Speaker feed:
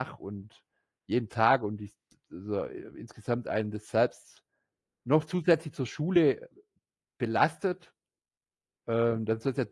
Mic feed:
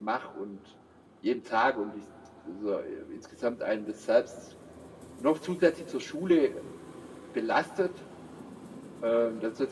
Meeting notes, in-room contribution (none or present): none